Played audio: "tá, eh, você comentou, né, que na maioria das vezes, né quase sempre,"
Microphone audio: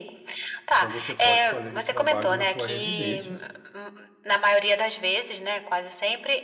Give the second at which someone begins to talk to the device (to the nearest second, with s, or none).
1 s